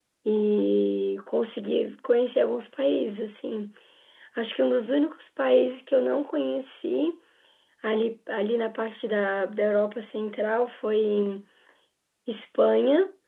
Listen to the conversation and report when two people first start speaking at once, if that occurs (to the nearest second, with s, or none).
none